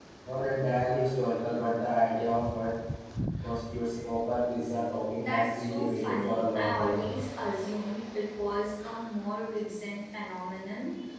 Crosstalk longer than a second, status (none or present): present